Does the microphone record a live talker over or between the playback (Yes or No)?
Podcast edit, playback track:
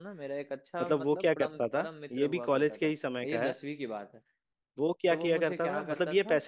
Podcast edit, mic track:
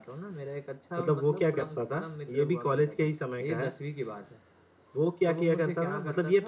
No